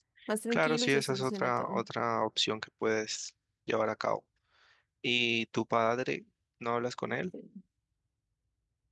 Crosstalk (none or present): present